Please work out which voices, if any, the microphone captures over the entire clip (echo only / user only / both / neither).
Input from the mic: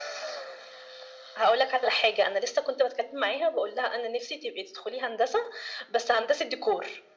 echo only